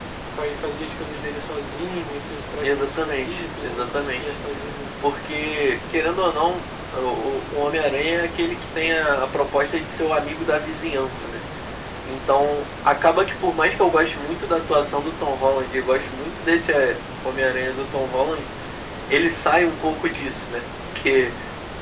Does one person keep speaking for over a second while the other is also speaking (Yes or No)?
Yes